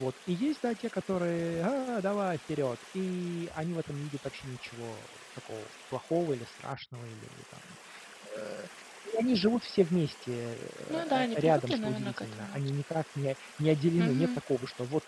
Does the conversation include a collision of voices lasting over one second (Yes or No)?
Yes